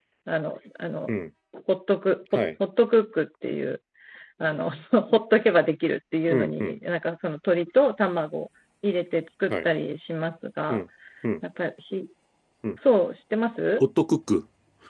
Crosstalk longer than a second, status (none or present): none